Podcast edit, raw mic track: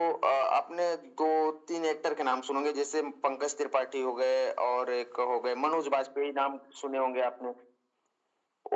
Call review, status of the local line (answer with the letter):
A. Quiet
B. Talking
A